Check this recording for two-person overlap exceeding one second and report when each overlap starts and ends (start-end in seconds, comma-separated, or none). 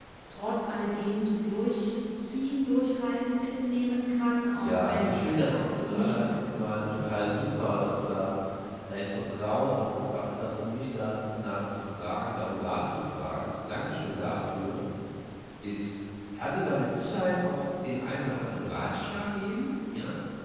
4.6-7.3